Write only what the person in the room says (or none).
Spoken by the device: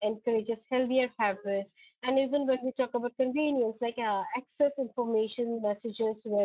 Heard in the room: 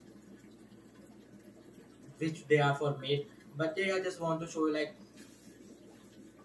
which they are for made but they are just want to show like